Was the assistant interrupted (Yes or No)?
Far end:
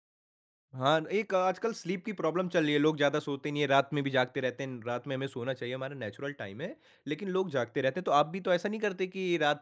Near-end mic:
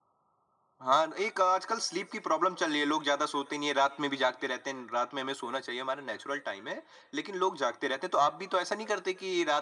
No